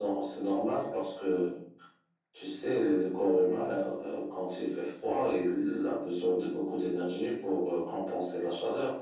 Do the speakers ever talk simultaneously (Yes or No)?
No